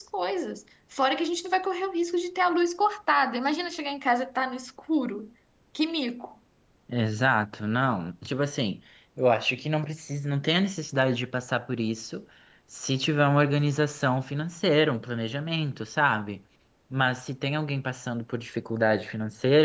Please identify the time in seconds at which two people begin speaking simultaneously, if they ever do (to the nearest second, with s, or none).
none